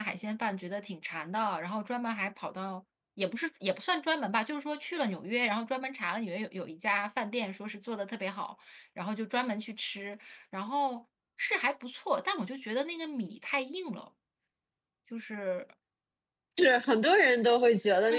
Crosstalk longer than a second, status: none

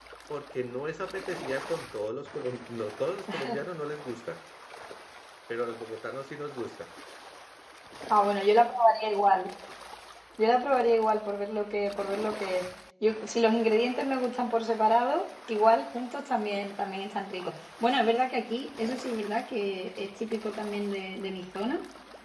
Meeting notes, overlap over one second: none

